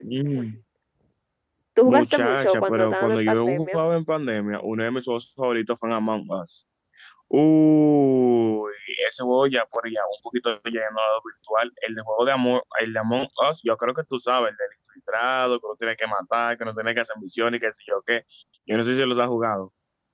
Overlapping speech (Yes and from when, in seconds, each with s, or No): Yes, from 1.9 s